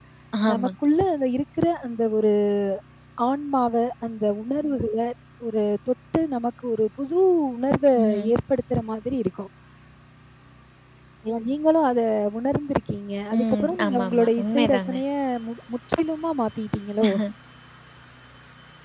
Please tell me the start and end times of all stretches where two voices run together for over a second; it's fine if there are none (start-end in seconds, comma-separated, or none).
13.4-14.9